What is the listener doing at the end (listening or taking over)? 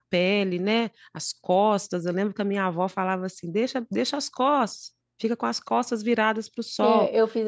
taking over